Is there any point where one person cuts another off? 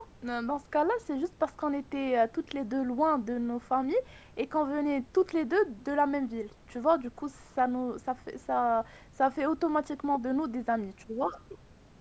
No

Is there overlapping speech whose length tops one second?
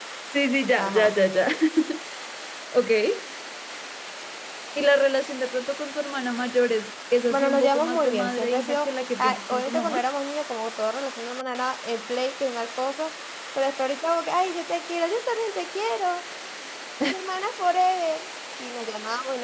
Yes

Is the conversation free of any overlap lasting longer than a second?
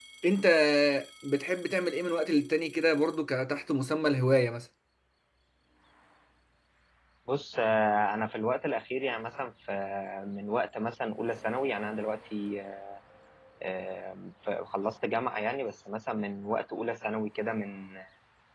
Yes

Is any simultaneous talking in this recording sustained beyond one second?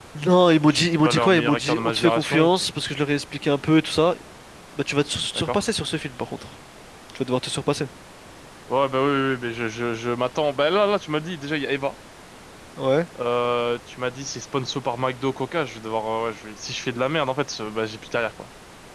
Yes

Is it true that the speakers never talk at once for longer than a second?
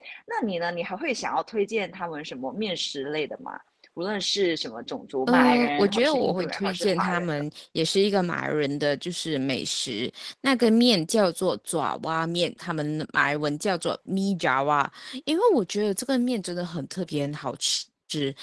No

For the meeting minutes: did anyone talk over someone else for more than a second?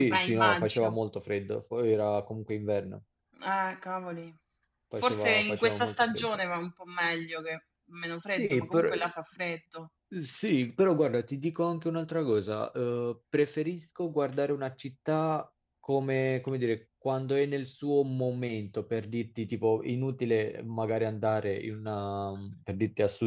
Yes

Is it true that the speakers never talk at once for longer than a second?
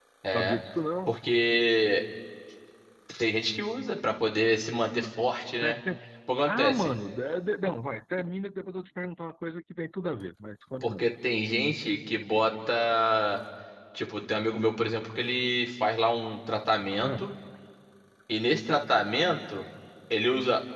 Yes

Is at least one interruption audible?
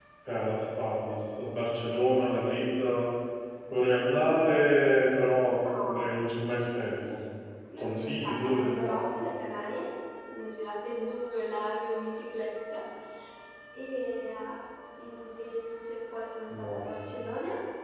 Yes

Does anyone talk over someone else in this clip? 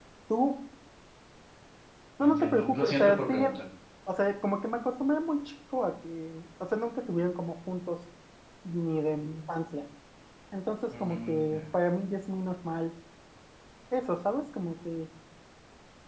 Yes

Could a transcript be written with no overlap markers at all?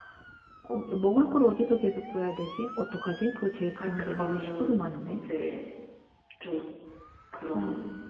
No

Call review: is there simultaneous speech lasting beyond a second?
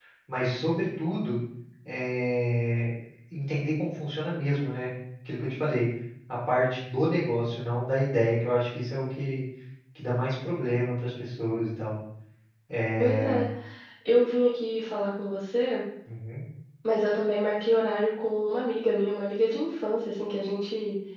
No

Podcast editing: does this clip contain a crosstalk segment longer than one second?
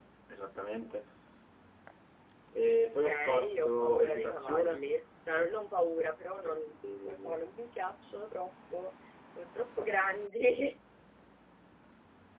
Yes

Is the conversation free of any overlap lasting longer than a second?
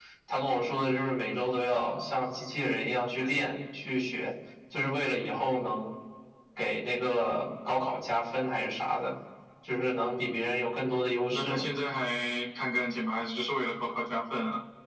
Yes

